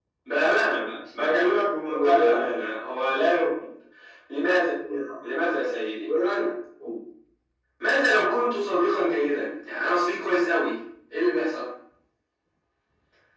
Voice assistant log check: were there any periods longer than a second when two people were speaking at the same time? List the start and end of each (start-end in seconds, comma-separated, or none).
1.0-2.4